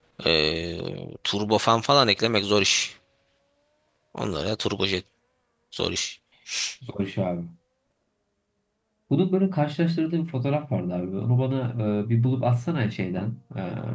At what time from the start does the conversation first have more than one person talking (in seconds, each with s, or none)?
none